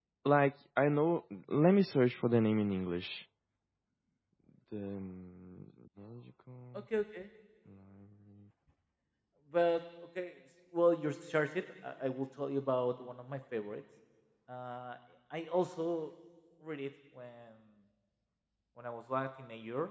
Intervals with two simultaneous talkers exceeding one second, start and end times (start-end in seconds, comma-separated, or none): none